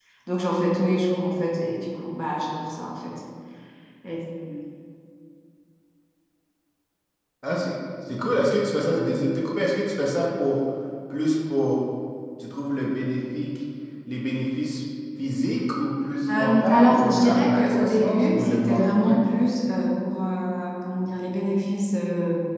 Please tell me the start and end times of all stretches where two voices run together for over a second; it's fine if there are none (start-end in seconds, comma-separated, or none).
16.3-19.2